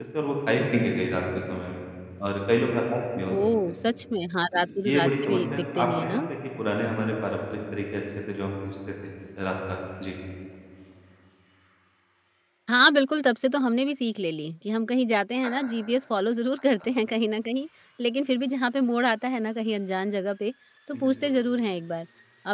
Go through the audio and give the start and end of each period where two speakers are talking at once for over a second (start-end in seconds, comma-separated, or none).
4.5-6.2